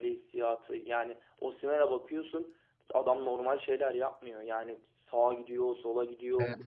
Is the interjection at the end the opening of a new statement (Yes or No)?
Yes